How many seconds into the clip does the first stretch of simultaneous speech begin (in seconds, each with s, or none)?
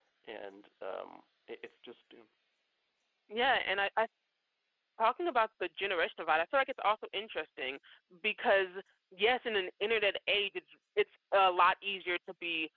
none